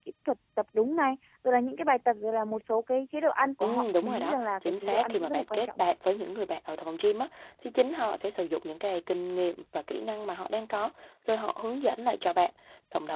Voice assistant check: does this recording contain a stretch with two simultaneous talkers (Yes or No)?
Yes